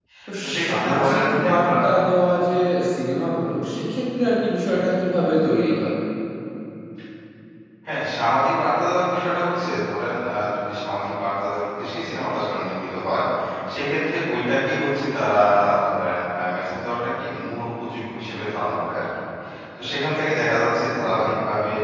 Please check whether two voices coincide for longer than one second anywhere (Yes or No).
Yes